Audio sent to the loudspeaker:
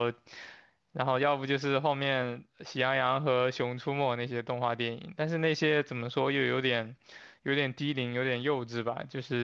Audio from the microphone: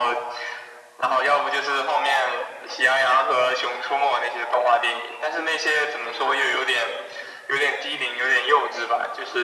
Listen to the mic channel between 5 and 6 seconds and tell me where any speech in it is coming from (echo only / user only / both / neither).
echo only